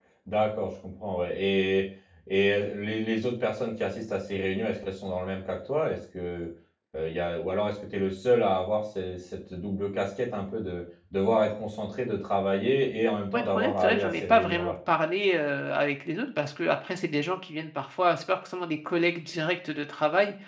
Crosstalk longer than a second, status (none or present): present